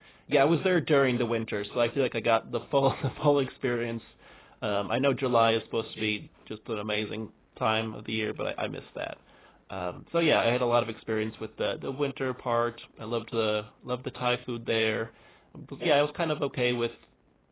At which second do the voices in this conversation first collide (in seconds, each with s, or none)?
none